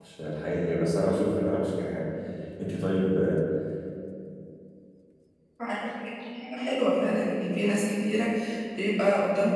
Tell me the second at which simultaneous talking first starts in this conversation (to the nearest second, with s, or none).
none